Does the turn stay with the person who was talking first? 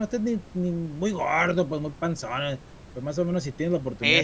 Yes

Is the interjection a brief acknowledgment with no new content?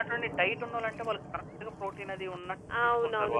No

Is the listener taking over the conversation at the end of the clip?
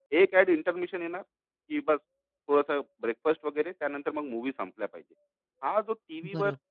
No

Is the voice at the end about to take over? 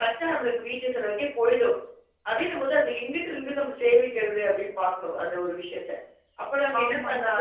Yes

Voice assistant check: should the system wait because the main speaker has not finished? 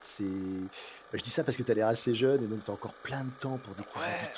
No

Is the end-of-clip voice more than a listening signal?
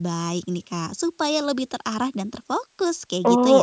Yes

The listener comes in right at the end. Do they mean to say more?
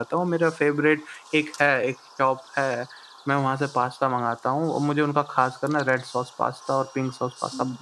No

